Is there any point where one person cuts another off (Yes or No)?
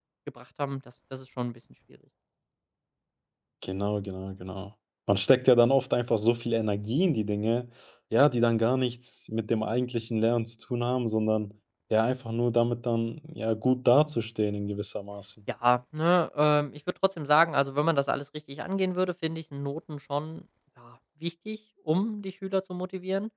No